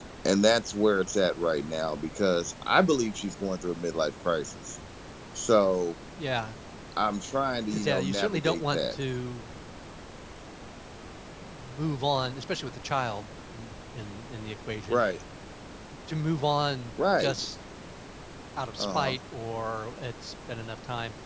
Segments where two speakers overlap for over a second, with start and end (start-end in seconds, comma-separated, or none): 7.7-9.0